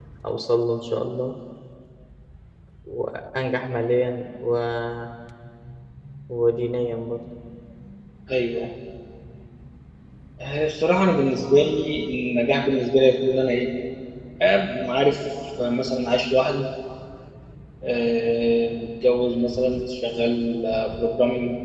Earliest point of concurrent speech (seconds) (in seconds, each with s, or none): none